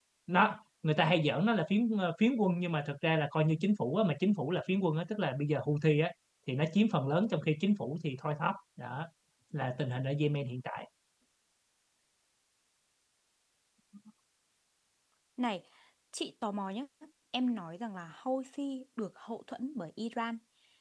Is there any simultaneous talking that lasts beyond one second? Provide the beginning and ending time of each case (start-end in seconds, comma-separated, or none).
none